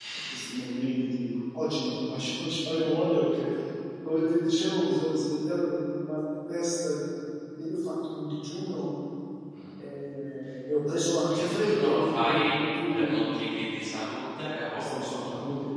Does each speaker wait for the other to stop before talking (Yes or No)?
No